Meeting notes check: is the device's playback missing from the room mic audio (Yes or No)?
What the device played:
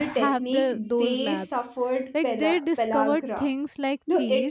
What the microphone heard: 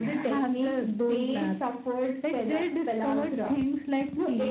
No